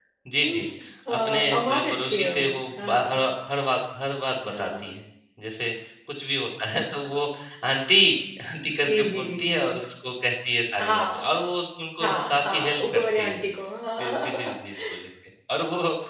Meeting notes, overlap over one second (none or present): present